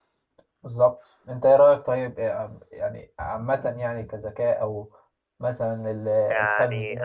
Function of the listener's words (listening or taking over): taking over